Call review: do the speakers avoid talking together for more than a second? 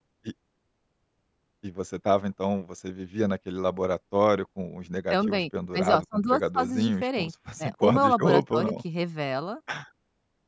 No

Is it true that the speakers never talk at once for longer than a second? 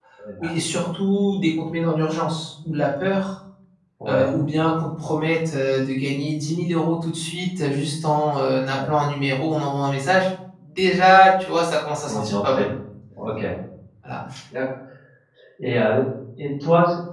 Yes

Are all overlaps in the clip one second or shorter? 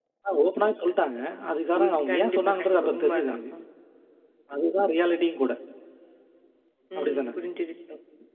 No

